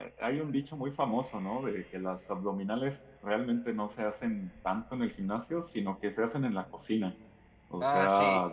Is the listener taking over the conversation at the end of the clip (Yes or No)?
No